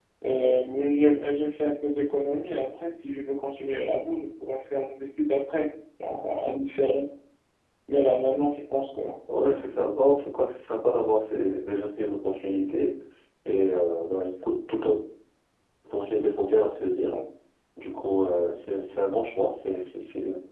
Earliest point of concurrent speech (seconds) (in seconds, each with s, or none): none